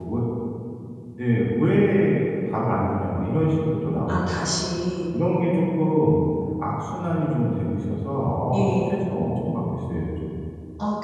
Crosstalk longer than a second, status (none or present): none